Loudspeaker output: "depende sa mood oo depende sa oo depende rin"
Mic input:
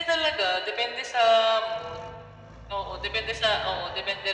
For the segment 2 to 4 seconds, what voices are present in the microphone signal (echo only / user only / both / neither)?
echo only